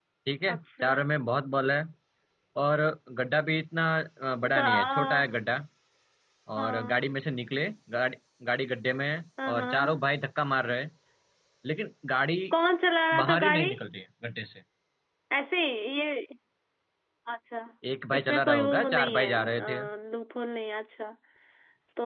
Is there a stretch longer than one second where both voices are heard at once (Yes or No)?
Yes